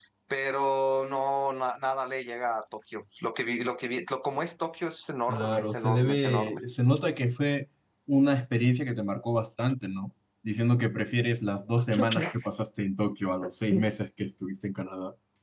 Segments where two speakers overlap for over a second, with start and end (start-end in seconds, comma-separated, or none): 5.3-6.6